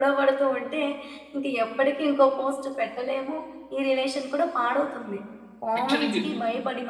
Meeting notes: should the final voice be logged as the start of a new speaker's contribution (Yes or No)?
No